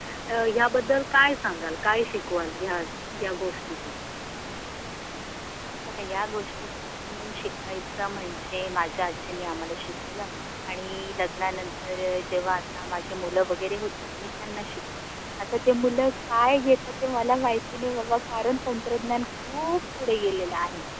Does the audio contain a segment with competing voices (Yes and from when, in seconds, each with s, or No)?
No